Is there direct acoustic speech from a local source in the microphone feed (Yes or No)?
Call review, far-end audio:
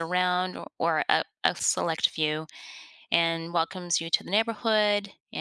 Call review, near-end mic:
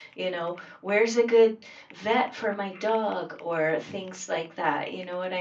Yes